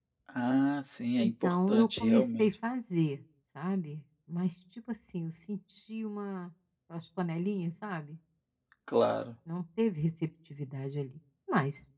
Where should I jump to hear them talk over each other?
1.2 s

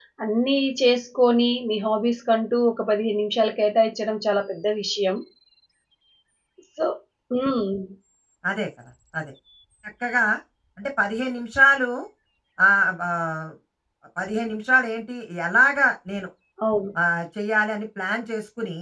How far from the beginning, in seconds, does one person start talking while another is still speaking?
none

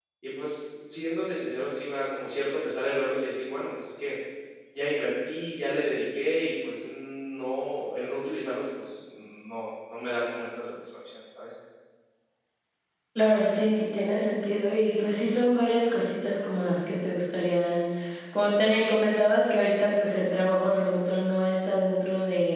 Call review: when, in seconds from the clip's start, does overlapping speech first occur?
none

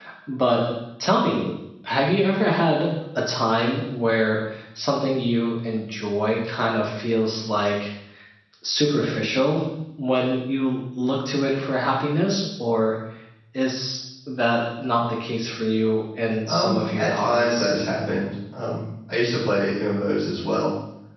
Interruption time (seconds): 16.5 s

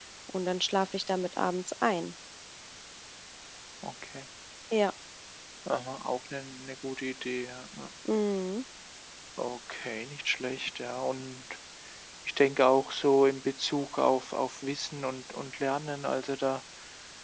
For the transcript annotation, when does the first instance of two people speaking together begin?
none

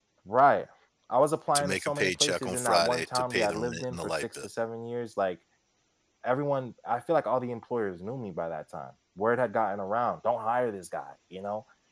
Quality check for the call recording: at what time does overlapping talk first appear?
1.6 s

